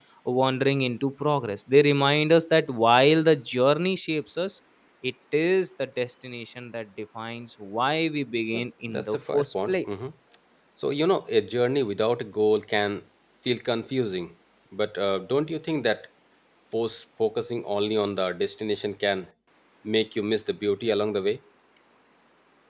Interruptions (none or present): present